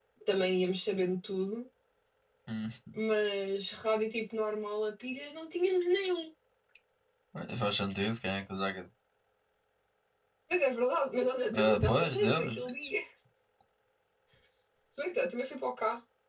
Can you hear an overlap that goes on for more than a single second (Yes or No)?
Yes